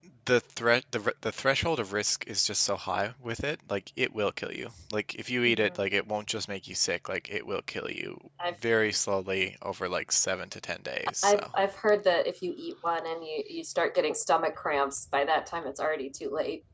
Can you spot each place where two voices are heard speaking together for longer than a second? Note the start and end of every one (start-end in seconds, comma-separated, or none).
none